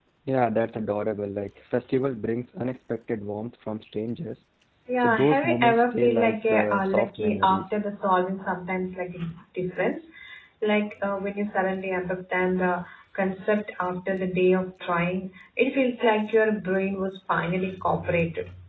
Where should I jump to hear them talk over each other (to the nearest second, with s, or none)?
5 s